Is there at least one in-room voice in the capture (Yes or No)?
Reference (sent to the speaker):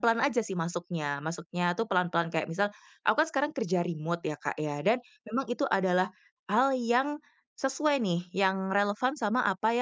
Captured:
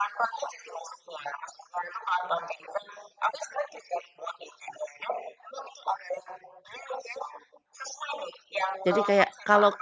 Yes